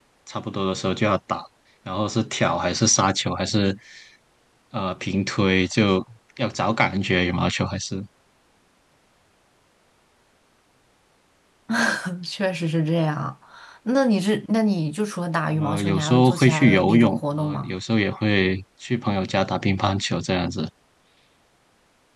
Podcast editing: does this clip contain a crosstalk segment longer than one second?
Yes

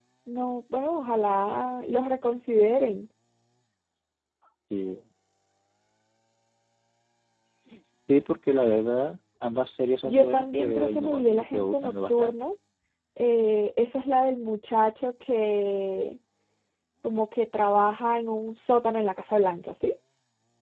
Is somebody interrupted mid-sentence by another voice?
Yes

